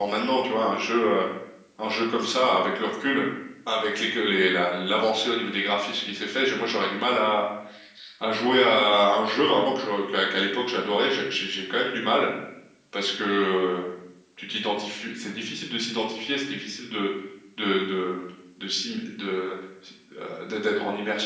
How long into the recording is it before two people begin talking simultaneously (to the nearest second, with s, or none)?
none